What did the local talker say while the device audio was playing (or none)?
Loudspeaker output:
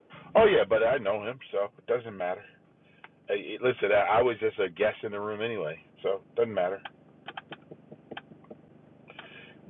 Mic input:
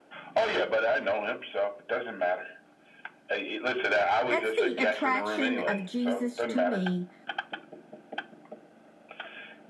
That's the attraction of Jesus to me